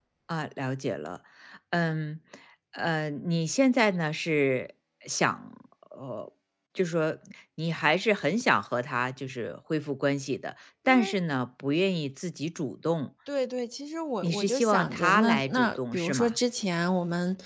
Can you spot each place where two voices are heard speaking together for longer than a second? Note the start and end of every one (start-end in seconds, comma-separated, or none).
14.2-16.4